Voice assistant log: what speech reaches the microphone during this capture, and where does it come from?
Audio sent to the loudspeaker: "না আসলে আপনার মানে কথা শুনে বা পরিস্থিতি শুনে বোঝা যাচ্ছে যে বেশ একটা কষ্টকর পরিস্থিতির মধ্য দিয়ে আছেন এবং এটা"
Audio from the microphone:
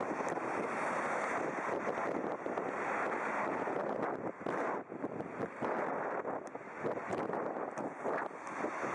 neither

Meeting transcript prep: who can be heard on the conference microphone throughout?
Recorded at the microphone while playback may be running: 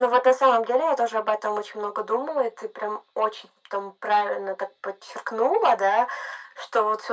echo only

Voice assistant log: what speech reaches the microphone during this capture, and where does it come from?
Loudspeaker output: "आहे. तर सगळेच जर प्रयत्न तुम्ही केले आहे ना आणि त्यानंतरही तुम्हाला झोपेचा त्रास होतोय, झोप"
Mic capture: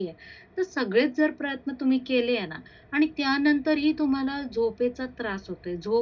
echo only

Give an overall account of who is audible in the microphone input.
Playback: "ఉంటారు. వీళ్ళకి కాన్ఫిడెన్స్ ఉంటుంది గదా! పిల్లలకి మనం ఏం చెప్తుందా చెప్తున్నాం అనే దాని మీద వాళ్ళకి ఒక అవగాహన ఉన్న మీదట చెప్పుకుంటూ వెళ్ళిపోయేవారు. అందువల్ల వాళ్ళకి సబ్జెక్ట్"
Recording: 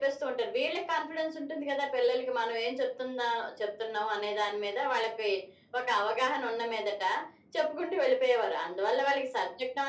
echo only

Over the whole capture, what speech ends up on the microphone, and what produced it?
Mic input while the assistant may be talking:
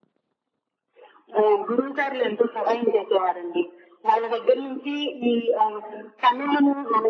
echo only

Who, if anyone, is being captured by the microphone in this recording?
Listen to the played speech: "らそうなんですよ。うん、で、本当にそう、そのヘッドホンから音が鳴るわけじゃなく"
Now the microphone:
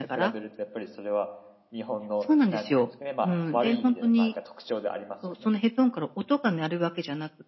both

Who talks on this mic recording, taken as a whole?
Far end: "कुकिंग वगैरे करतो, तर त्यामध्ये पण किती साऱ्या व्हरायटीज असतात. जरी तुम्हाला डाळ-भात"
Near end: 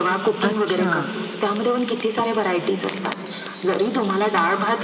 both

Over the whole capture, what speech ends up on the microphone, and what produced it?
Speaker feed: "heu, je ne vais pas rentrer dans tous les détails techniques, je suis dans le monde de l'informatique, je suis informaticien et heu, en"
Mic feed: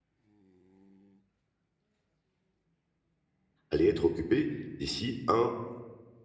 user only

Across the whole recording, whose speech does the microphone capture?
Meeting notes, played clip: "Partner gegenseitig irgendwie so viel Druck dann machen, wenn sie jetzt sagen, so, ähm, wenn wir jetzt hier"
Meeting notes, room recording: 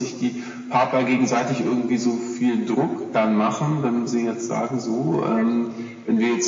both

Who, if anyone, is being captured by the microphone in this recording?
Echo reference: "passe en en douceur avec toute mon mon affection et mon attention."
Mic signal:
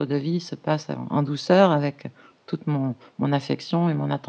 echo only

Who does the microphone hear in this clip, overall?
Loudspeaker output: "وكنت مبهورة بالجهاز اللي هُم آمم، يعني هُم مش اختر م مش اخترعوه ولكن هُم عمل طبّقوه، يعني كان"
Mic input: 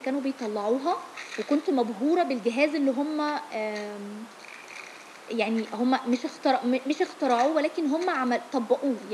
echo only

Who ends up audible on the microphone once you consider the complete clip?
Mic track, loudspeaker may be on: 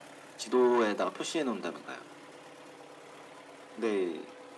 echo only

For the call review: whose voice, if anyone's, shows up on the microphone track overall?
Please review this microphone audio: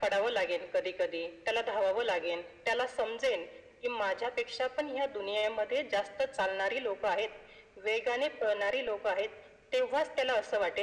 echo only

